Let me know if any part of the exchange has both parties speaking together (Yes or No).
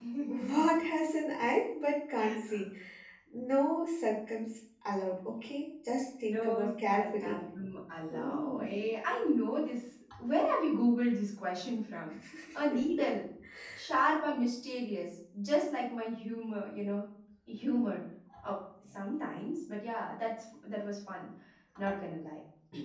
Yes